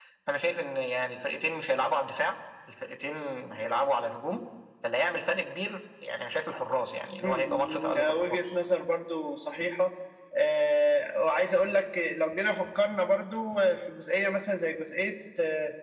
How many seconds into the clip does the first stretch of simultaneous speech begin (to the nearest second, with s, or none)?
7 s